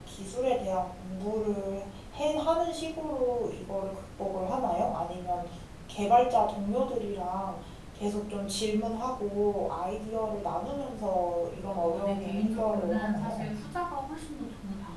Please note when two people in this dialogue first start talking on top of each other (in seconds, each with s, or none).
11.7 s